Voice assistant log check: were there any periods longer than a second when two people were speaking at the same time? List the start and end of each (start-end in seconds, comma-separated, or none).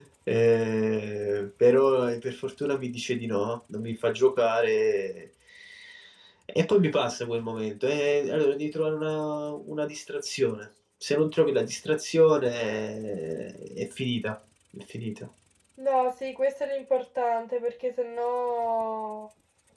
none